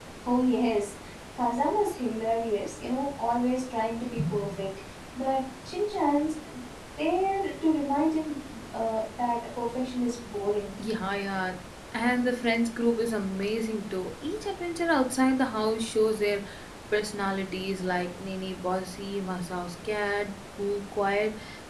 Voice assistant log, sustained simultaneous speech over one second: none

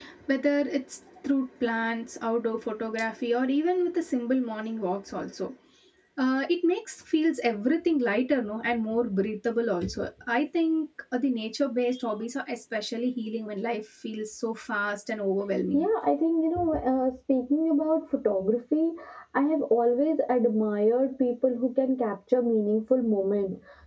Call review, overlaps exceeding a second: none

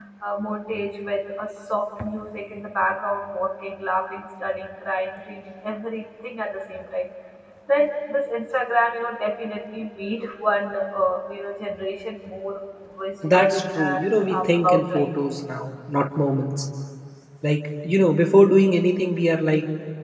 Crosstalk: present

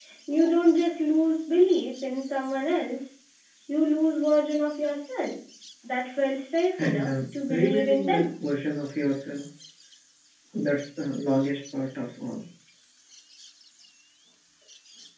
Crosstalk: present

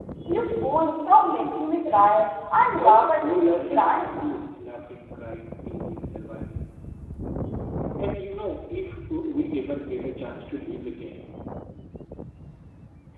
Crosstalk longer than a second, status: present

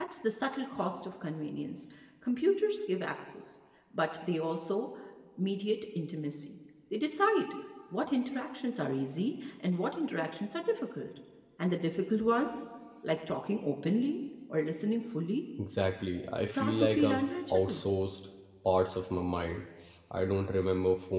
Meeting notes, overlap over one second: present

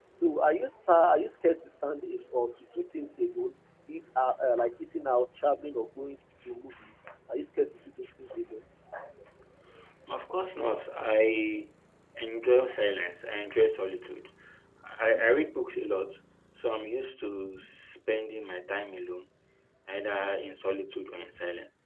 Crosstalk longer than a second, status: none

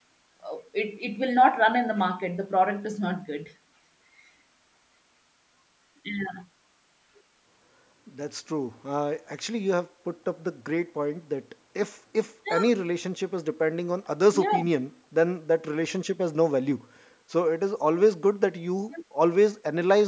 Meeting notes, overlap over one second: none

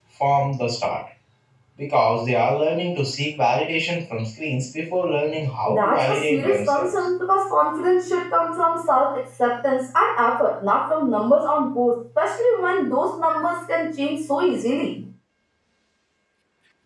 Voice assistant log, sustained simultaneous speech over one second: present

